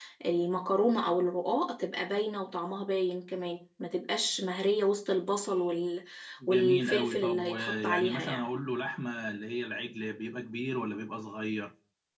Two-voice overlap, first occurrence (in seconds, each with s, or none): 6.5 s